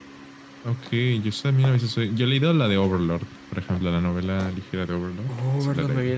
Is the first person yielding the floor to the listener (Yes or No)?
Yes